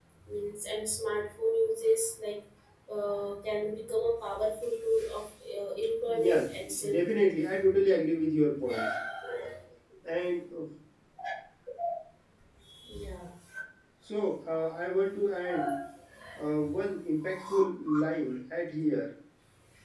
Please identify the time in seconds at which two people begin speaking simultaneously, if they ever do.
6 s

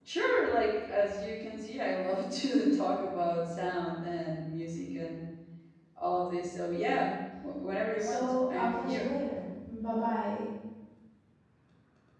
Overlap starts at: 8 s

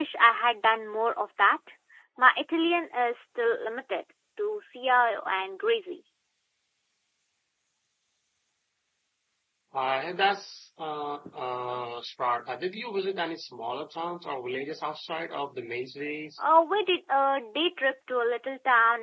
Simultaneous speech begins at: none

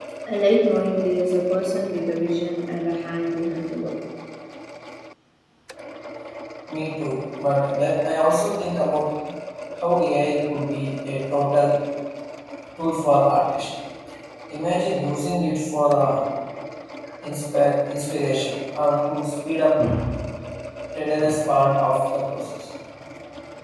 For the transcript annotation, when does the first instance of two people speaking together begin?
none

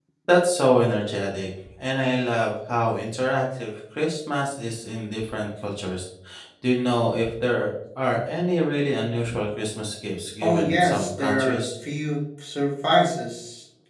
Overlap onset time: 10 s

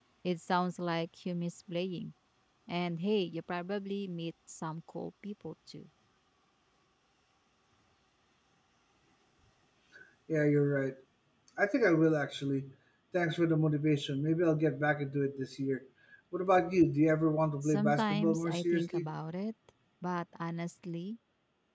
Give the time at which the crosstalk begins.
18 s

